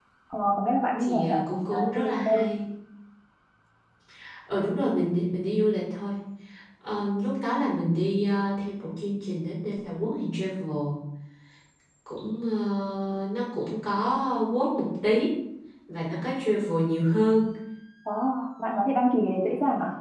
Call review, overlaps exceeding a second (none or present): present